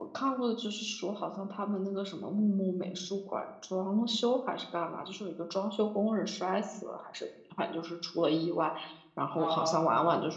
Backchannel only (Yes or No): Yes